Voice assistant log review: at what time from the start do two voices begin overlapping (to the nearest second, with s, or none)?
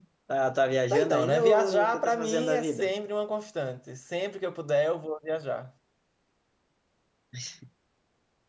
1 s